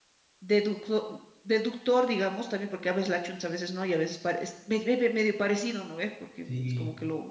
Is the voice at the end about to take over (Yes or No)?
No